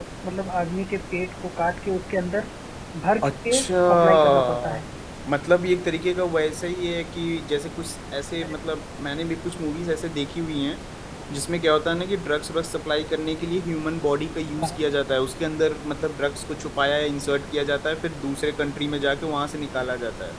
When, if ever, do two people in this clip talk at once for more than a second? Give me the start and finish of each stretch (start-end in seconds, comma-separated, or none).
3.2-4.8